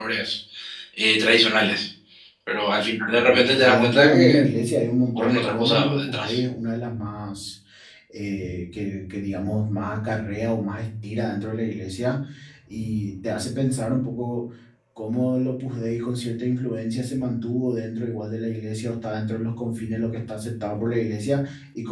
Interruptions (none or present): present